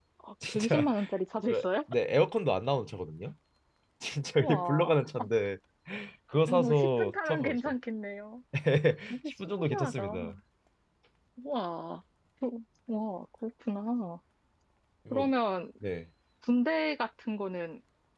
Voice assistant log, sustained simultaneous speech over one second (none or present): present